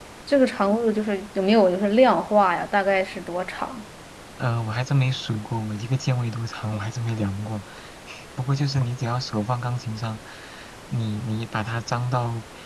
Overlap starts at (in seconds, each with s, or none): none